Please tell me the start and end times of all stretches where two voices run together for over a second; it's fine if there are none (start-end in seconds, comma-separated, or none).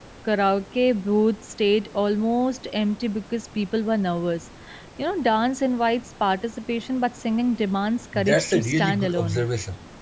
8.1-9.5